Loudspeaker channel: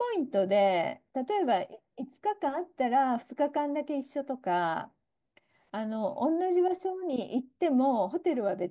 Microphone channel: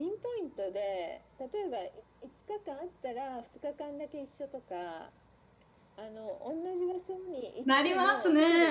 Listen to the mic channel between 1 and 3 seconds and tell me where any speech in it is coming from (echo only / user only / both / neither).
echo only